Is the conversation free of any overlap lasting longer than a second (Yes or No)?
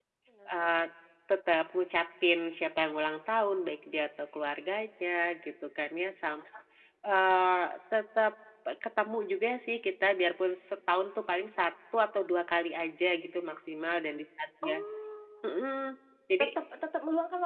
Yes